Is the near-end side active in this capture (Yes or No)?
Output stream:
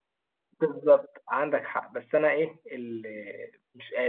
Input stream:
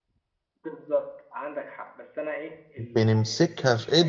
Yes